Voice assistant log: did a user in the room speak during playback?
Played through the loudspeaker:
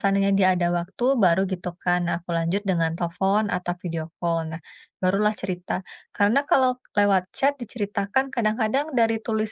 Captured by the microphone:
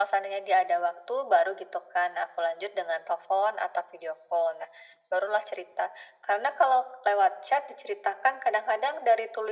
No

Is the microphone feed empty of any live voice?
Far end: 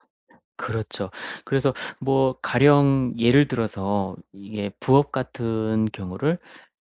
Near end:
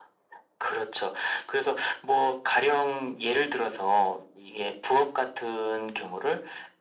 Yes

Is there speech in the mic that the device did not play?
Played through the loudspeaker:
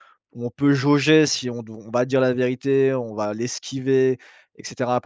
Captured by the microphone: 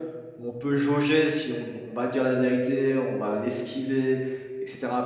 No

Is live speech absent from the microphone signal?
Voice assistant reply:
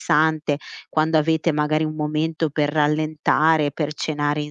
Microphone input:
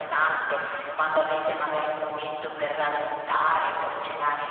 Yes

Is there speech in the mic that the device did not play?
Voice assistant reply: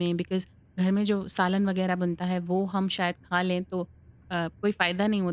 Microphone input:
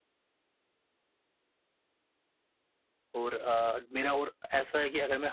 Yes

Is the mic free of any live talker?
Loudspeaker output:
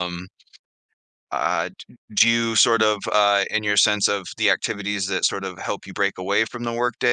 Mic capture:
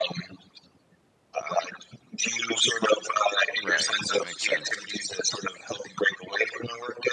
No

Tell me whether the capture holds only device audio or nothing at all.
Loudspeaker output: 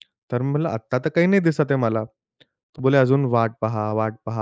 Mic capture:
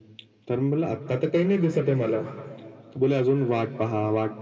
Yes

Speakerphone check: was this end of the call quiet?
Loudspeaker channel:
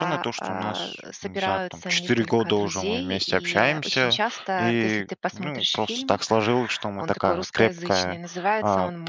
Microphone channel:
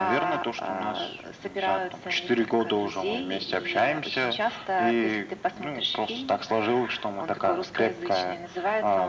Yes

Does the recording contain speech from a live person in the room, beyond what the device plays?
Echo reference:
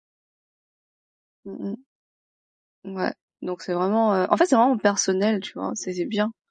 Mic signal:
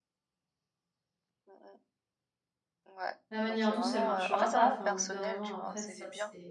Yes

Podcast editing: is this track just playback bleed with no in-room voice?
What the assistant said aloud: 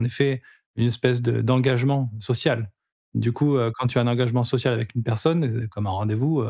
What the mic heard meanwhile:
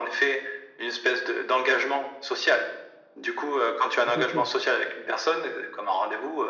No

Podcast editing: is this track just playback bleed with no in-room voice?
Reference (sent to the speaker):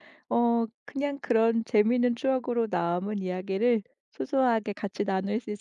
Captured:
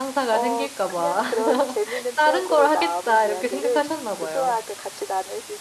No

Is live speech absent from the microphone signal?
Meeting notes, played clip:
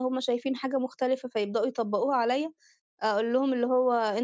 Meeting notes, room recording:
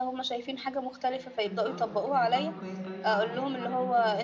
No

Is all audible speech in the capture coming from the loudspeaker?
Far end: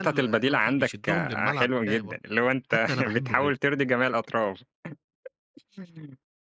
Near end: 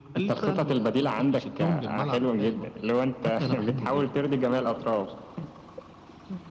Yes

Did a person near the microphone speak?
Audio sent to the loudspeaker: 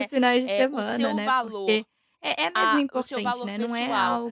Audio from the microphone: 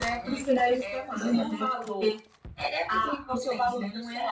No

